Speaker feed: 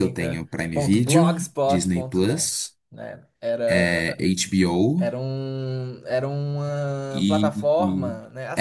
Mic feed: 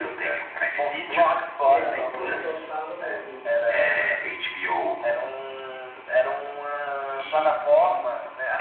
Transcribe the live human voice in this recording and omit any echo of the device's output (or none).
Não, ele só tá no MUBI.